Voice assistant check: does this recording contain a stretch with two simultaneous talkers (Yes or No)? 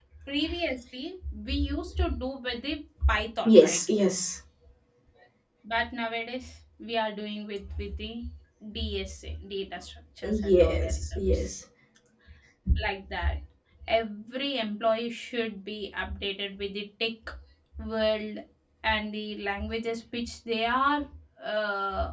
Yes